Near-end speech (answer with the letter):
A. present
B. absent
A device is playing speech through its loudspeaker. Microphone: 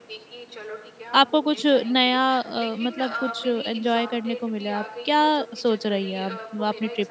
A